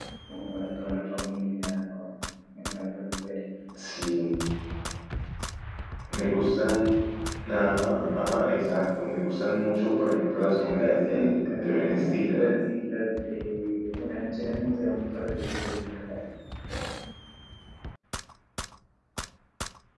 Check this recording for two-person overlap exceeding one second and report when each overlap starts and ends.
10.8-12.4

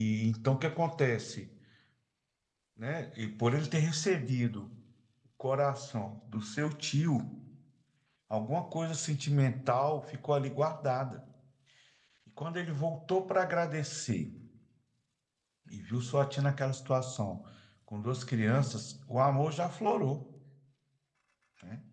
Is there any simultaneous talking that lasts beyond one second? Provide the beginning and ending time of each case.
none

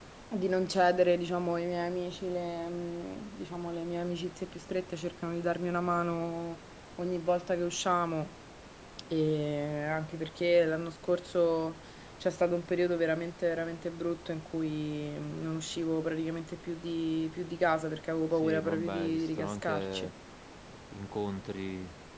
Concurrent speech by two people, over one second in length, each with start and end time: 18.4-20.1

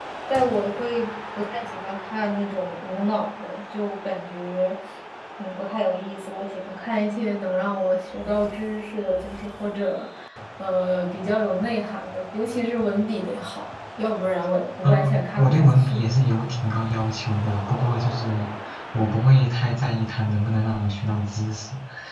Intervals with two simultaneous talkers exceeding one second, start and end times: 14.8-16.1

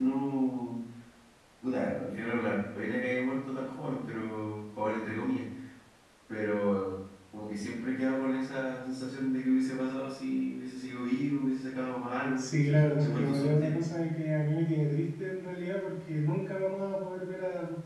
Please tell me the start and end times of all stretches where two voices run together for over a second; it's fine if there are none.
12.4-13.8

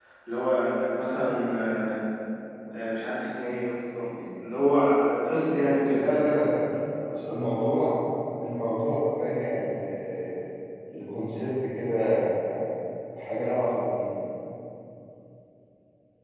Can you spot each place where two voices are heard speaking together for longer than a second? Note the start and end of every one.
none

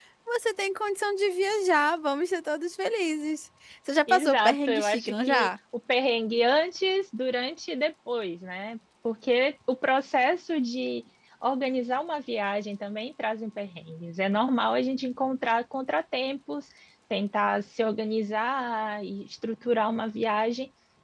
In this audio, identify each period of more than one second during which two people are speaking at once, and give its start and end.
4.1-5.5

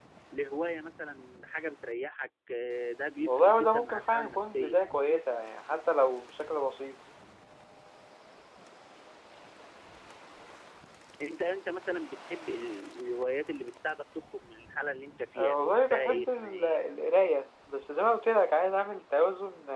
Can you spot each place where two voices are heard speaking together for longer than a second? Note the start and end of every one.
3.3-4.8, 15.4-16.8

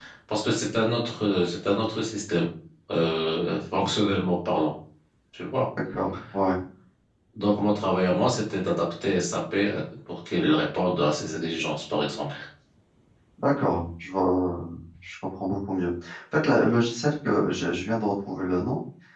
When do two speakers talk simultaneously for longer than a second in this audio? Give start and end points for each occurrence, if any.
none

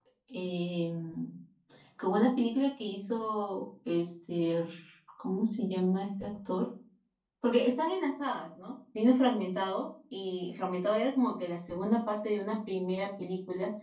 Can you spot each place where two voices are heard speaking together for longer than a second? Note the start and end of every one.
none

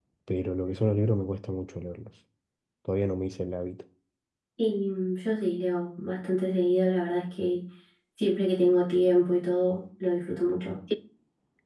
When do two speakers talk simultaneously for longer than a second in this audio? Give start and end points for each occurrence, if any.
none

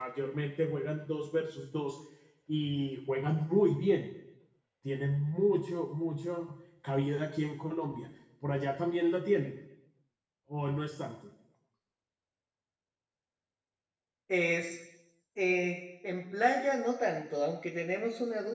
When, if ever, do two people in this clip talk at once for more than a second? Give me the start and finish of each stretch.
none

